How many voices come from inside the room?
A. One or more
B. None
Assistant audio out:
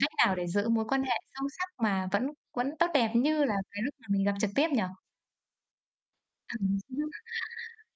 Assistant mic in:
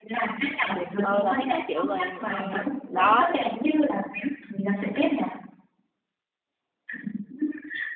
A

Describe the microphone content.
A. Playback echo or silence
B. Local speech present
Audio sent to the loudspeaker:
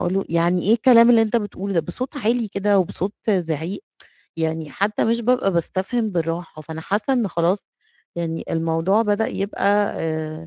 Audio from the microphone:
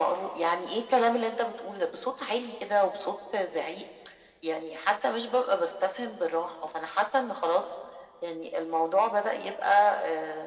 A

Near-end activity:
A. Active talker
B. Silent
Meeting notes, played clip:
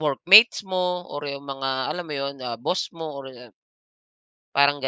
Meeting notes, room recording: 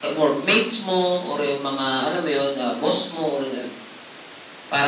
B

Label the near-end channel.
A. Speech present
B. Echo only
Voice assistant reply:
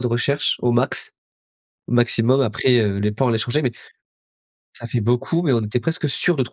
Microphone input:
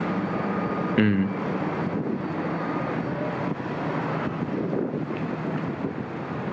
A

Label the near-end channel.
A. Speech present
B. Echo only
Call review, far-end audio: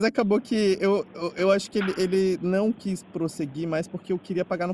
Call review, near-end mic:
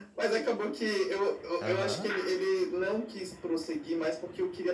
A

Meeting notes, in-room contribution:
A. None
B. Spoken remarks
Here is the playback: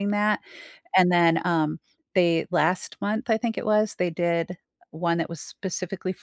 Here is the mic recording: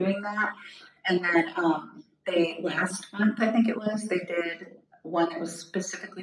A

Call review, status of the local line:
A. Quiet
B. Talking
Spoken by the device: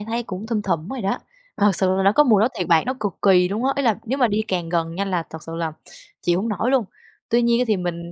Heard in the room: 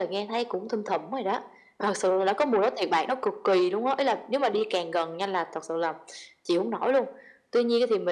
A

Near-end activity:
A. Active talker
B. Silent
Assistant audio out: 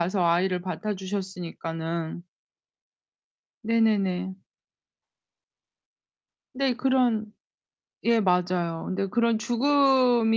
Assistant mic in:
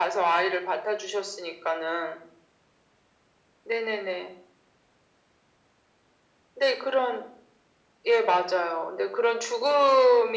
B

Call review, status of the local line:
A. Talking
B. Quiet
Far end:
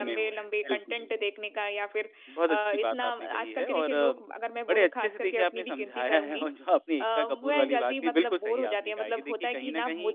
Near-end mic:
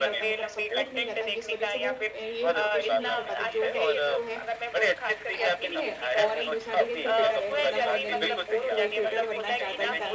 A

